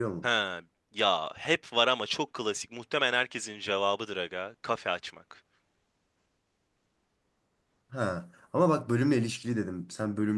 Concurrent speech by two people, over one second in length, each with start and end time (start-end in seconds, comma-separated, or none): none